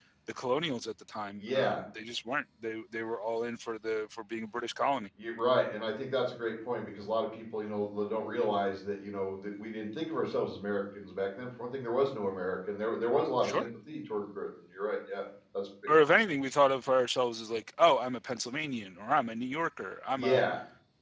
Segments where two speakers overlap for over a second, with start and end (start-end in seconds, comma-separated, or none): none